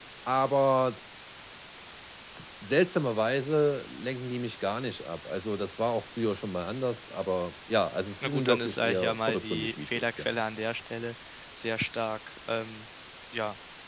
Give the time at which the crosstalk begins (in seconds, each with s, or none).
8.2 s